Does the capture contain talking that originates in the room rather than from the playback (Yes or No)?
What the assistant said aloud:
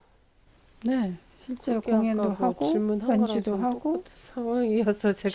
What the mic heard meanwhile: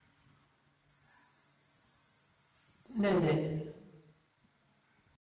Yes